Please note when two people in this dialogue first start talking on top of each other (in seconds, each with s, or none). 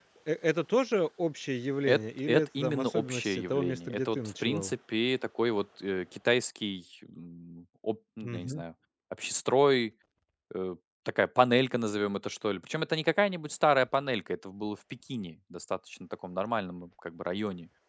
1.9 s